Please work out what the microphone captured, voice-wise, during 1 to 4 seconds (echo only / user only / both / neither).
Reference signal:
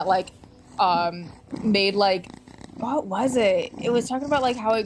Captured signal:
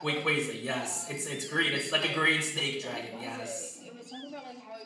both